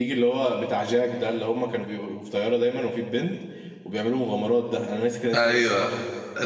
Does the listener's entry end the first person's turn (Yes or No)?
Yes